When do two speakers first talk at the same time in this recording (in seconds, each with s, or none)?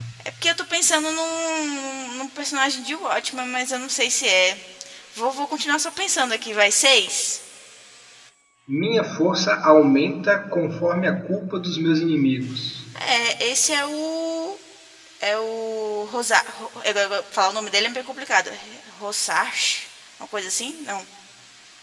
none